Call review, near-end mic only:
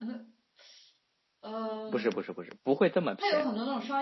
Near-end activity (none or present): present